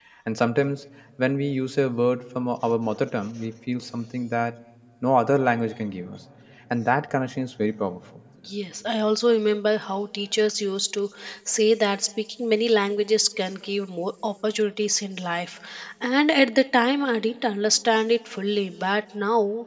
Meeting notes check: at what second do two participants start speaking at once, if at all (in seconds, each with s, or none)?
none